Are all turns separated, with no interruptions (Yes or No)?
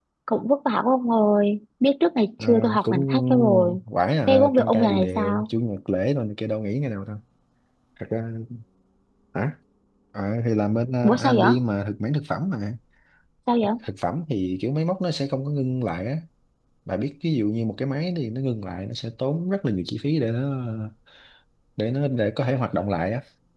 No